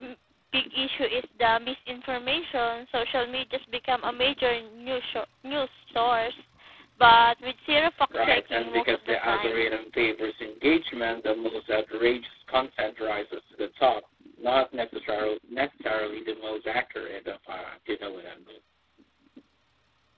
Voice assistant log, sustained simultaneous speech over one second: present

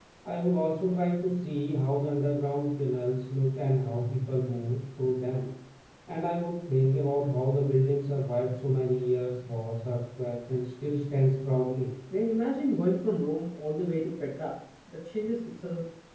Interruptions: none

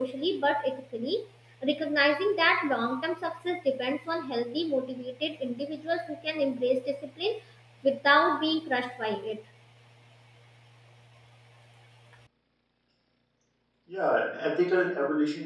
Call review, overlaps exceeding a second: none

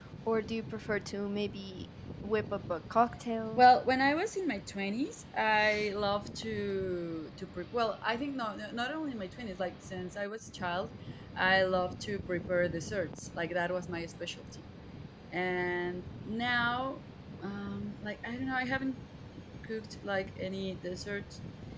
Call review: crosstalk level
none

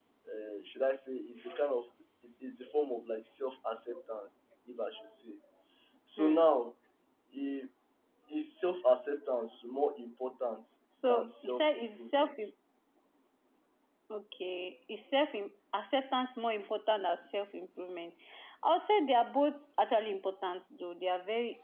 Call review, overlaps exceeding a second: present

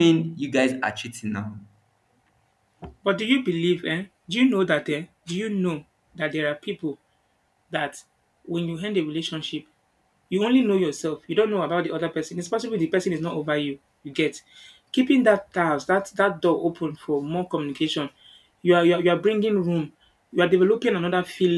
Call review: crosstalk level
none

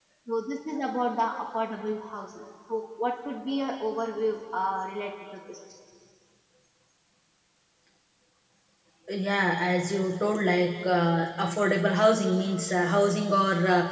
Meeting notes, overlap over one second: none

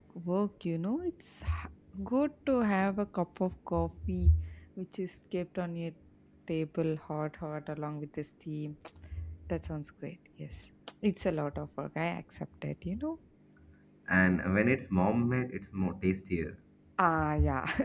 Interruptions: none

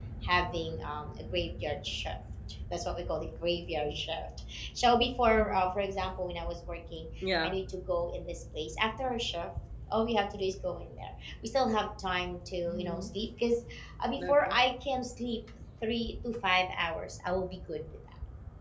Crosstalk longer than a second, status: none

